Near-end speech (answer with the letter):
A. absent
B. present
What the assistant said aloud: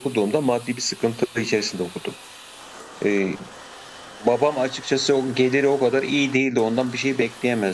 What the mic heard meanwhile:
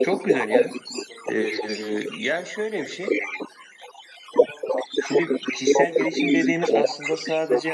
B